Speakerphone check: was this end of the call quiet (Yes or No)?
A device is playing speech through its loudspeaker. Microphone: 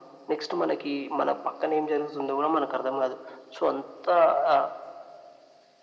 Yes